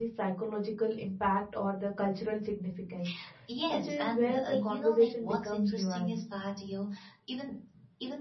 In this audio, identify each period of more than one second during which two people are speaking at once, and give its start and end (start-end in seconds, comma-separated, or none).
3.7-6.1